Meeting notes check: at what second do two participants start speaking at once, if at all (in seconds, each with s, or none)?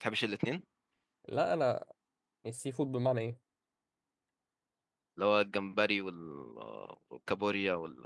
none